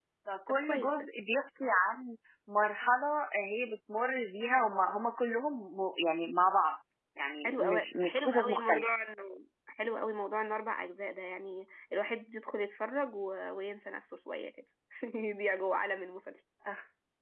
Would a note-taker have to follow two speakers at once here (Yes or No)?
Yes